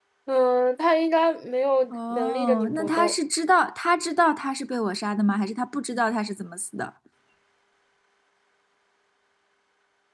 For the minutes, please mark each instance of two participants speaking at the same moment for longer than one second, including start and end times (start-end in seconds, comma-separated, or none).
1.9-3.2